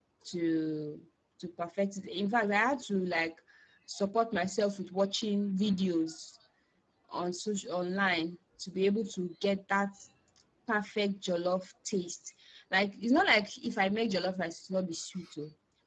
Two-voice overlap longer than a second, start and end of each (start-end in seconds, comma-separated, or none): none